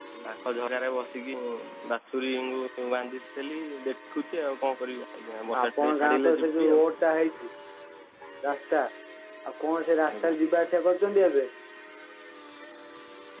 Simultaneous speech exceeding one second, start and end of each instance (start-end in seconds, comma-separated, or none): 5.6-6.8